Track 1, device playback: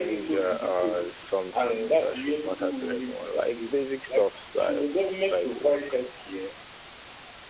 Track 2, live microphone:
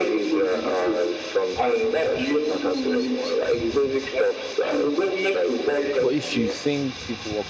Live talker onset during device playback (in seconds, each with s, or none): 6.0 s